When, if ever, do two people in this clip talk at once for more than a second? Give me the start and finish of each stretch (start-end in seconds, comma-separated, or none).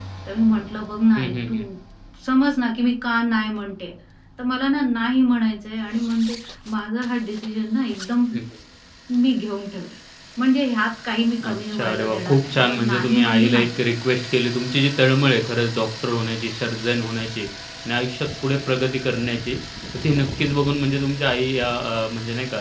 11.4-13.8